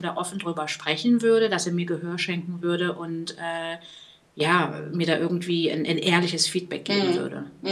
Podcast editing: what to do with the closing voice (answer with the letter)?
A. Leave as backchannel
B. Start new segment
B